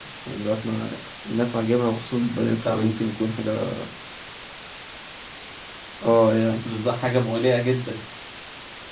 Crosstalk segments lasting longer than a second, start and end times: none

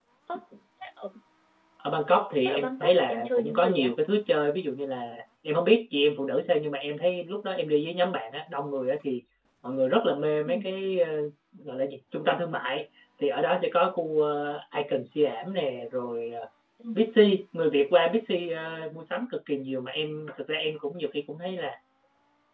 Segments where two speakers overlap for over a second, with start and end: 2.4-3.9

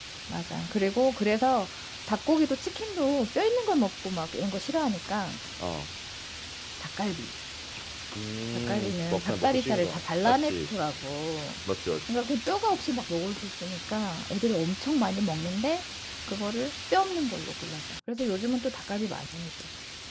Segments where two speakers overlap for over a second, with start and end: 8.7-10.7

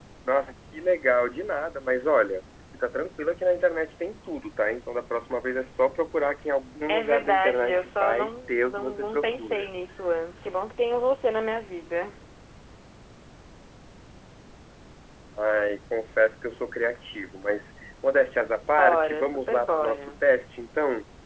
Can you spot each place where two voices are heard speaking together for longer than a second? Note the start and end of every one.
6.9-9.7, 18.7-20.1

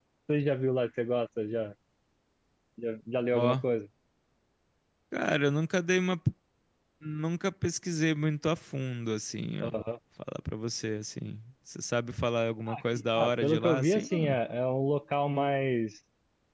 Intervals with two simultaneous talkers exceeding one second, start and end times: 13.2-14.4

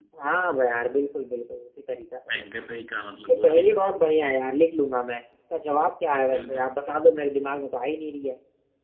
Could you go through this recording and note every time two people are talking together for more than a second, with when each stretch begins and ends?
none

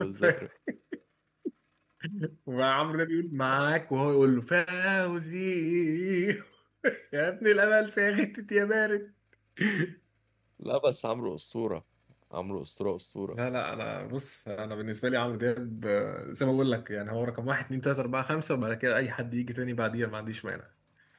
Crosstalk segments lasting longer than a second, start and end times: none

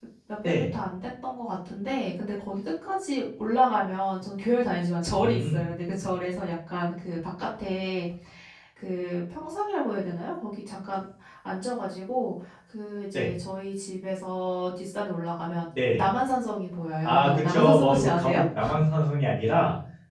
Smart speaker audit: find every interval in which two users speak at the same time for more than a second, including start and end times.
17.0-18.4

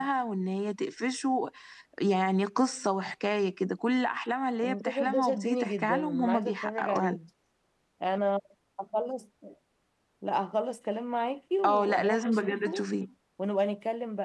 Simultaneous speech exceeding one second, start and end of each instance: 4.6-7.2, 11.6-12.9

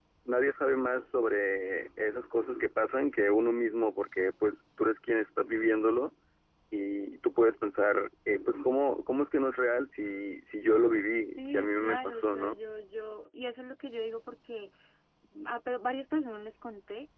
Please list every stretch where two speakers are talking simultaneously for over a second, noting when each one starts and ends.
11.4-12.6

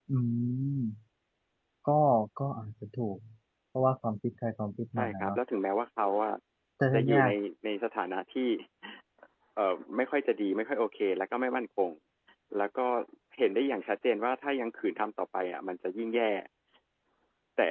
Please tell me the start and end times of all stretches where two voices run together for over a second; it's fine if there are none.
none

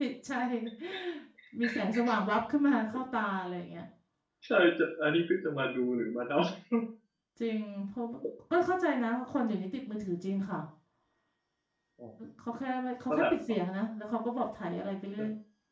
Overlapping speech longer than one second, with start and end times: none

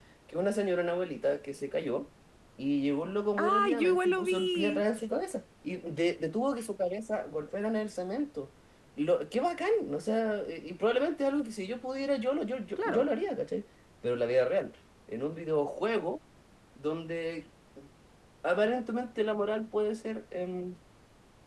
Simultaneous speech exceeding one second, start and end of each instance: 3.4-4.8

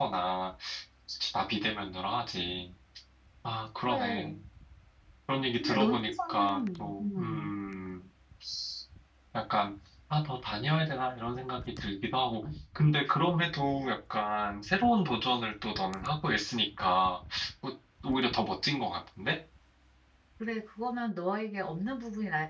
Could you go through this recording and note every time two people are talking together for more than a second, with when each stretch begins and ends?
5.5-7.5

